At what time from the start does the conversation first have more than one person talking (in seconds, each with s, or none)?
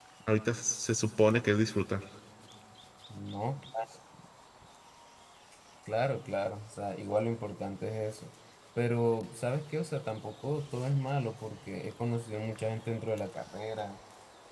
none